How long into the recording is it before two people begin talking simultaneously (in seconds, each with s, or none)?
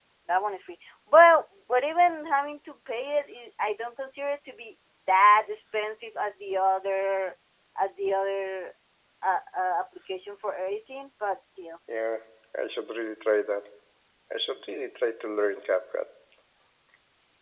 none